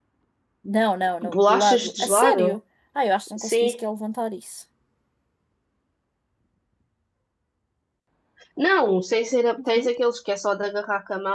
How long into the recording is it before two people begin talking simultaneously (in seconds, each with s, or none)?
1.2 s